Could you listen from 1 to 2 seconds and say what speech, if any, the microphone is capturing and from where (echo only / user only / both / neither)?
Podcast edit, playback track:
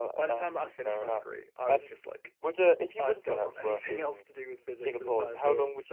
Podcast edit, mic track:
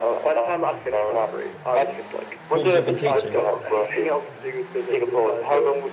echo only